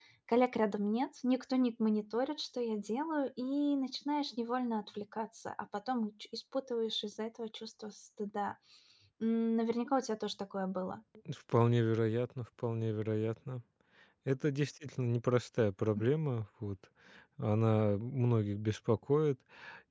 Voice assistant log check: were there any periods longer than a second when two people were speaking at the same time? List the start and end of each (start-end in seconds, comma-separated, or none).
none